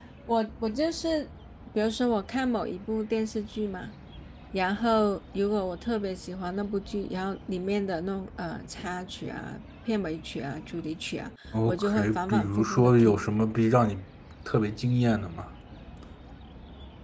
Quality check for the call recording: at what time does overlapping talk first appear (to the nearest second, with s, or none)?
12 s